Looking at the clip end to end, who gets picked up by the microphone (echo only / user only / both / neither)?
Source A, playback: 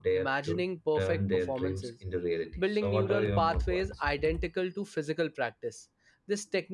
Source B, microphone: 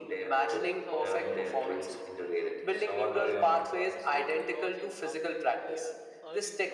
both